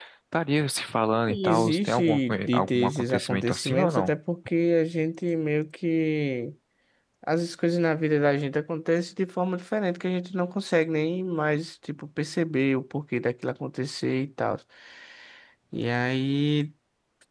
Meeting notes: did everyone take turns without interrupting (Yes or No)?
No